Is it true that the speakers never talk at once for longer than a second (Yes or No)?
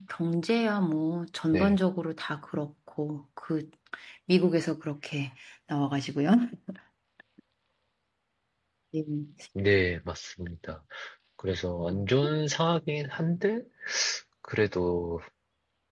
Yes